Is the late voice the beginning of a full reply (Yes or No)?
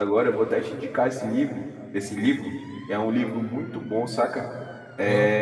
No